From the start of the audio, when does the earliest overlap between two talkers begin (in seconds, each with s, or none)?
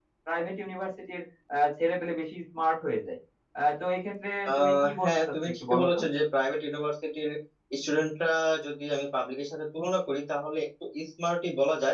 4.5 s